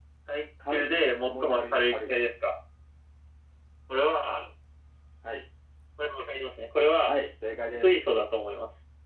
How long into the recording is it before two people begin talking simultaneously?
0.7 s

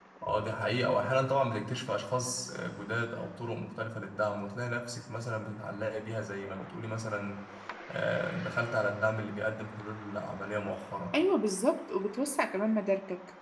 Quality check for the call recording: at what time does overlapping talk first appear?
none

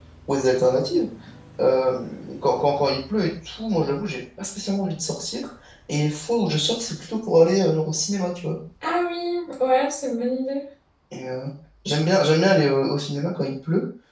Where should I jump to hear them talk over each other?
none

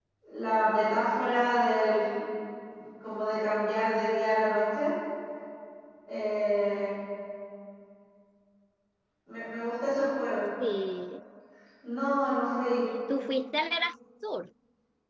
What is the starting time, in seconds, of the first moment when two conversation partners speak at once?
none

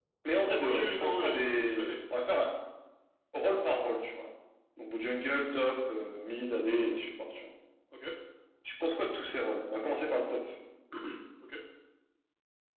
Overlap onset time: 0.6 s

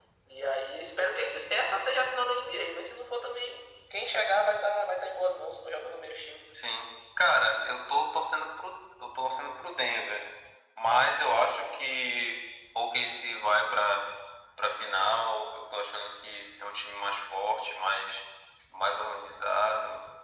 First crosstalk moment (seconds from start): none

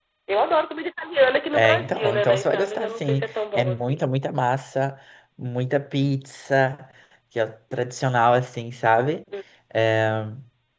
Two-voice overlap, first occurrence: 1.5 s

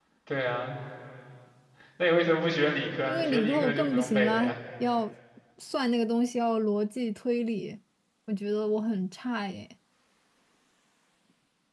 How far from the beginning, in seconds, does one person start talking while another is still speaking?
3.1 s

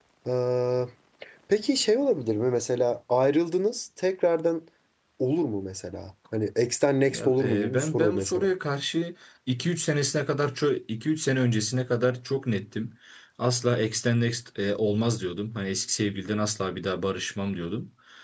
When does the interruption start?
7.1 s

